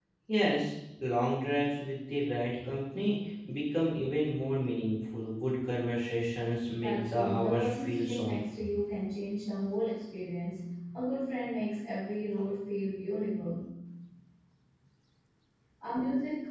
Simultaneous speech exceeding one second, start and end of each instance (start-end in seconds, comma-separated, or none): 6.8-8.4